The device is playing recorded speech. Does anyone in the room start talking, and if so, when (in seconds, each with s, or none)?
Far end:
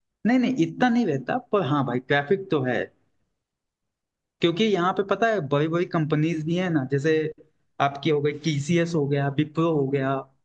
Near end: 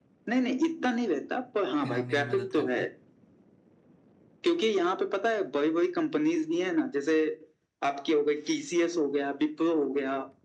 1.8 s